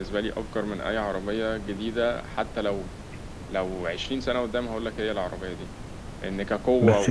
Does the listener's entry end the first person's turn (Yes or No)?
No